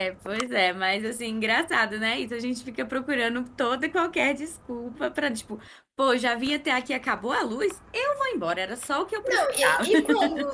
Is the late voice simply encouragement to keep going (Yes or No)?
No